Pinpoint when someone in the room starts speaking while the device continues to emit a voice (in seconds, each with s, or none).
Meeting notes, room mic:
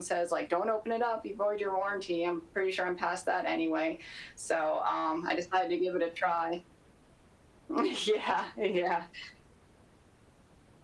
none